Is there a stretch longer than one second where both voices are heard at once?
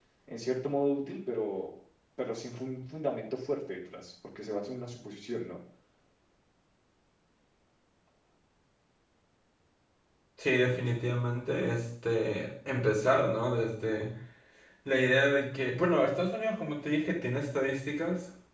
No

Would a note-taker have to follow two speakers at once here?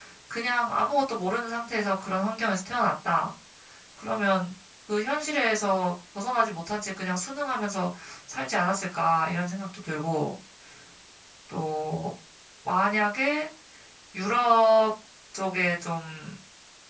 No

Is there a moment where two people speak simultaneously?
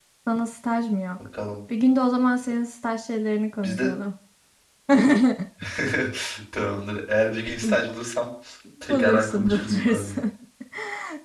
Yes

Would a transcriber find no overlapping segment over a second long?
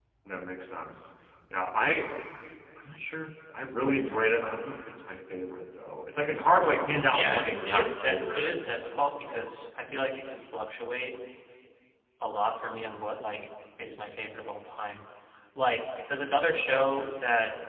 No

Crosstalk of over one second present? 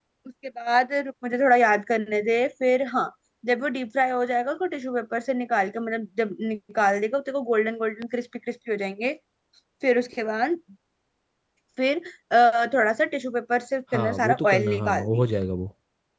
Yes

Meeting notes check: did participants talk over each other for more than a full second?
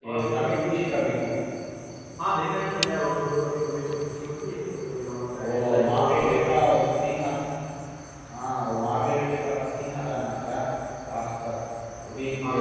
Yes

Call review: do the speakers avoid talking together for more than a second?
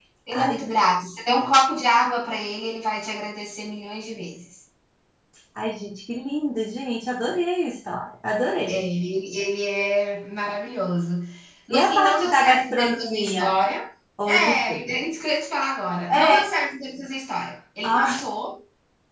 No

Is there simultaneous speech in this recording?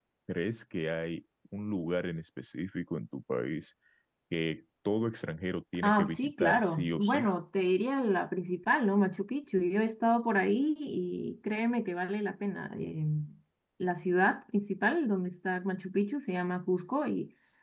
Yes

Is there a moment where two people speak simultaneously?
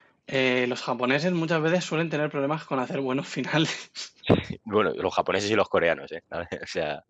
No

